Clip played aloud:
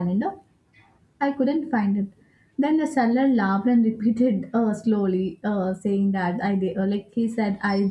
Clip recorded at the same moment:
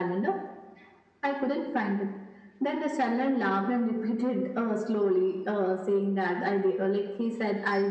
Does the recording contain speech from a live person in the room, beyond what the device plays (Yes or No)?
No